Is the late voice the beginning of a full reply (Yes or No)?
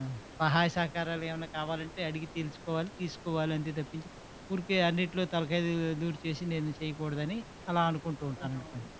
Yes